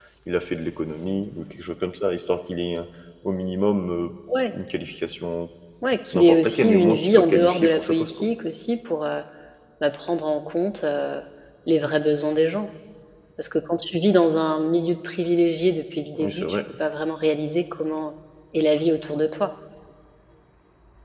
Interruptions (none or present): present